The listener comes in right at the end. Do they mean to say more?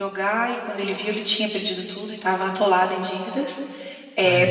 No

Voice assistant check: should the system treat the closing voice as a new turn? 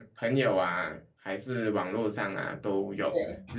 No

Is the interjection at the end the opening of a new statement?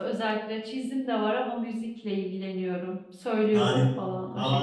Yes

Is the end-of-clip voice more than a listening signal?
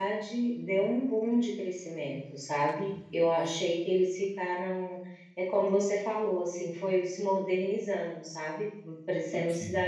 No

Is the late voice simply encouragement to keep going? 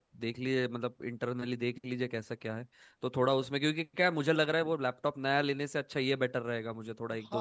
No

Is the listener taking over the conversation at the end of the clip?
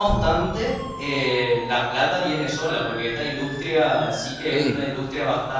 No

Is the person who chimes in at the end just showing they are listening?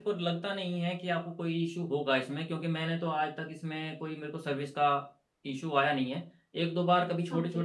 Yes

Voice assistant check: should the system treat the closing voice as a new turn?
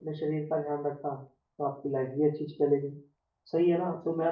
No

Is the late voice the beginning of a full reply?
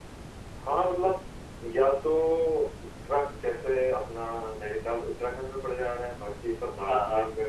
No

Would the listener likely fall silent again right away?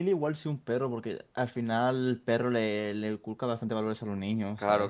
No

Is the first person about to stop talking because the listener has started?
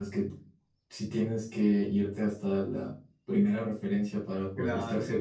No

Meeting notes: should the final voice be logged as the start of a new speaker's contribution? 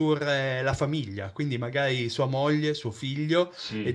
No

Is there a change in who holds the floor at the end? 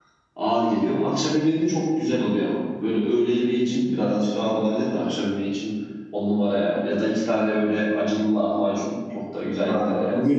Yes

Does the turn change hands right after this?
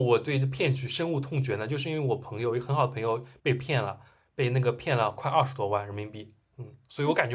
No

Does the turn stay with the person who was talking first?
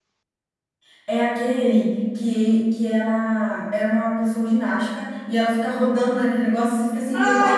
No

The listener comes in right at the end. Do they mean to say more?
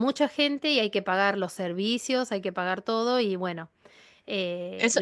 Yes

